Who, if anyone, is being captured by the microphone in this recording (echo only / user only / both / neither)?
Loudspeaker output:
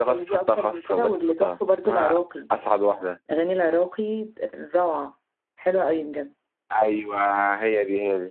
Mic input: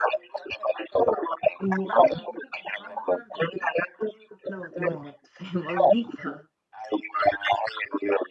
both